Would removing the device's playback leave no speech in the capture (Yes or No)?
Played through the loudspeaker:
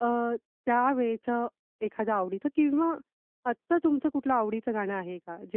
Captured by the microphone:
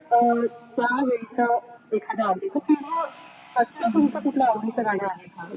No